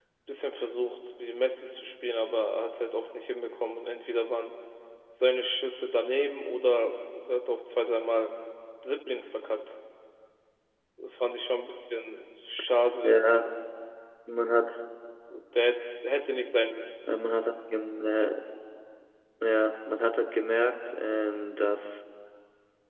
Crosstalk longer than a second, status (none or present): none